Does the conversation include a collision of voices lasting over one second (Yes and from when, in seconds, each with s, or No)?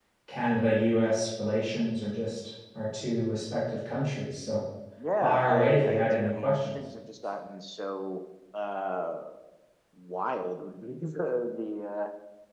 Yes, from 5.2 s